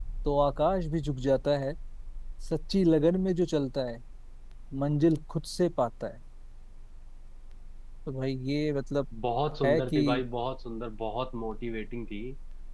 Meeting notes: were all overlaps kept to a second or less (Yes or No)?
Yes